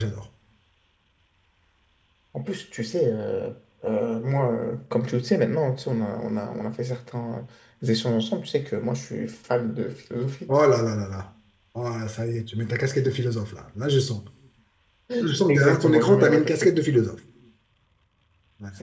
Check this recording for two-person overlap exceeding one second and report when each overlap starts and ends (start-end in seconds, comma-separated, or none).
15.5-16.7